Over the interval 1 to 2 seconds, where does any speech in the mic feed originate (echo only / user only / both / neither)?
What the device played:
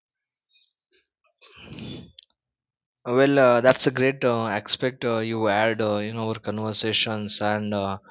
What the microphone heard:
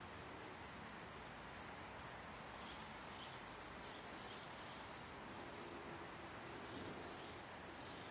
neither